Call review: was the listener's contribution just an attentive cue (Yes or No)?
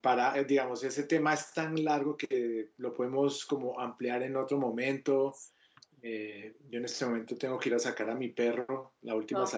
No